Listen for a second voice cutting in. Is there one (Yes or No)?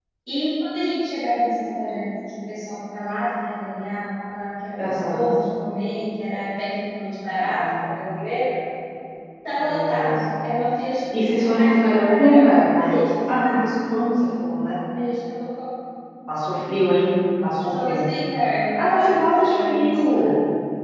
Yes